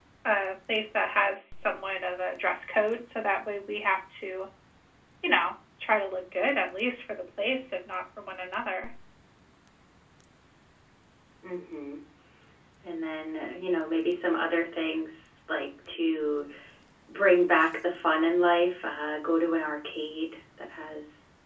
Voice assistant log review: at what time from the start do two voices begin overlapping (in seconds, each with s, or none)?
none